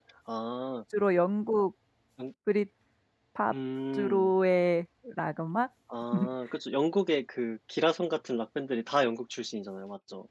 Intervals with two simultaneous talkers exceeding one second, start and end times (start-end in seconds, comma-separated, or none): none